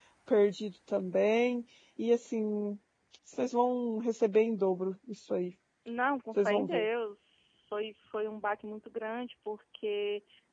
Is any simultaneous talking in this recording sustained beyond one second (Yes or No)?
No